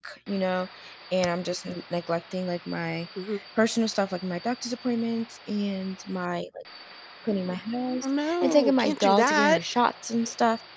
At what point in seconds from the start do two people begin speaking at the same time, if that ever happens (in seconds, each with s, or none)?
8.0 s